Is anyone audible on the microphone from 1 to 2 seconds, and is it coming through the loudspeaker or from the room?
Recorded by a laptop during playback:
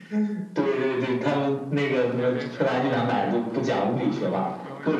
echo only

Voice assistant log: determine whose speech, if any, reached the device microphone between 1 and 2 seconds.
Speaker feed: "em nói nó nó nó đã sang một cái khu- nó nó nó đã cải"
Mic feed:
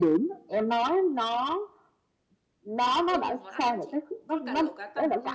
echo only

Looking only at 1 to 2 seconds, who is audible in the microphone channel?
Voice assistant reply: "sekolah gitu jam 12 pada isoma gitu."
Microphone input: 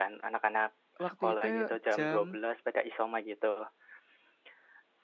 both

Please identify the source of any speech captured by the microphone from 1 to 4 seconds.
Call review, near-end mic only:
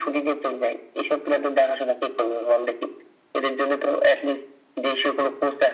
echo only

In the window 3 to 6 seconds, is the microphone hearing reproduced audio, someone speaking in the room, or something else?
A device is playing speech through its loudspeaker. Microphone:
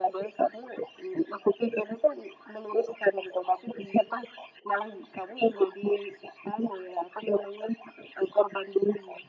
echo only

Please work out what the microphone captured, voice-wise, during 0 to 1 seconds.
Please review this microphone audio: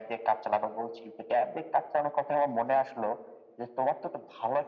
echo only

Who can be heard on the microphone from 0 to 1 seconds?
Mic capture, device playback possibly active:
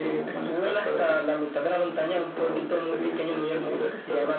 echo only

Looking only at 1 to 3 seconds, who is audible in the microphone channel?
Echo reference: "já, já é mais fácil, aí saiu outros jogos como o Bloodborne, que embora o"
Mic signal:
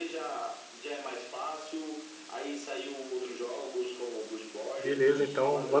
echo only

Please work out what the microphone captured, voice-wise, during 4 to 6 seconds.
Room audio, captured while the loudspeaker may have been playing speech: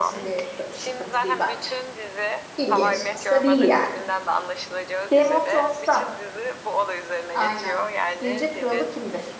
both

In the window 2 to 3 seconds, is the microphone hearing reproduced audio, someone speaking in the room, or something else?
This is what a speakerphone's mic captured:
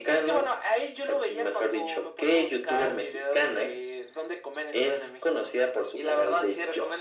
echo only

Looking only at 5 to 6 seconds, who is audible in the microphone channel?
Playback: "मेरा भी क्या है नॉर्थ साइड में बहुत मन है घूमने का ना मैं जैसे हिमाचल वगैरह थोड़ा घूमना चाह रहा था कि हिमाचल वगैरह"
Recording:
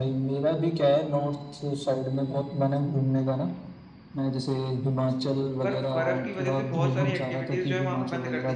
both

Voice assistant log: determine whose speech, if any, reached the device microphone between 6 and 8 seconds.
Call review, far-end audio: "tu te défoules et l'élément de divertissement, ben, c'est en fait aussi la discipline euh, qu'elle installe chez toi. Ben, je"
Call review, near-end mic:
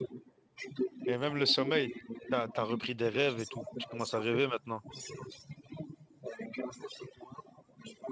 echo only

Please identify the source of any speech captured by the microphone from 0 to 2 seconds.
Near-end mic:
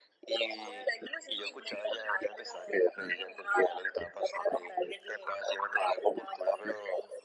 echo only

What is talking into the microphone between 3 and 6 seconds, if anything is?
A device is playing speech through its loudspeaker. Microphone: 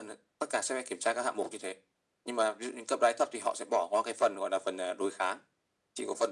echo only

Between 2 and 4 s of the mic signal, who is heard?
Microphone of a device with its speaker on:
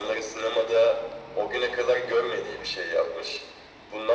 echo only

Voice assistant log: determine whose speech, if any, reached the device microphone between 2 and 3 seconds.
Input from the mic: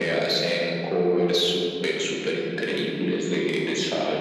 echo only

